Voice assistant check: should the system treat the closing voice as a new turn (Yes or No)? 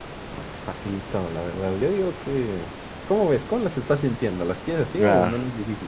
Yes